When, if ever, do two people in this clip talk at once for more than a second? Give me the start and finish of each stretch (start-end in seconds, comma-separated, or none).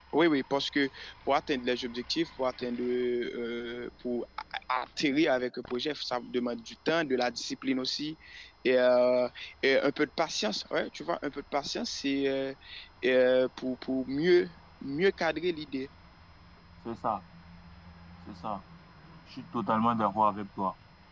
none